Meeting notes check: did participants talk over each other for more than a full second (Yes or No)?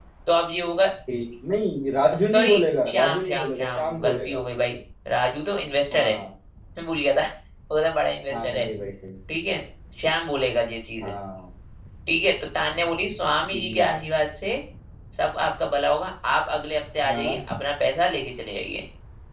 Yes